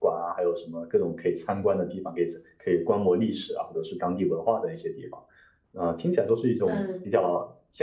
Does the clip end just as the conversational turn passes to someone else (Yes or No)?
No